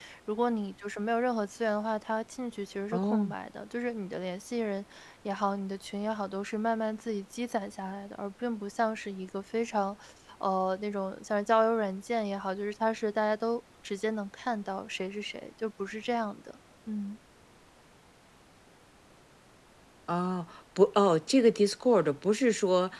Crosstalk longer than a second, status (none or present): none